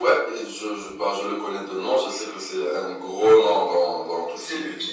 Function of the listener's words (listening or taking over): taking over